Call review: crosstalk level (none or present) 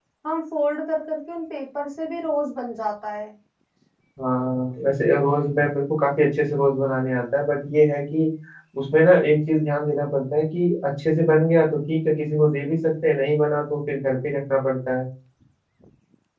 none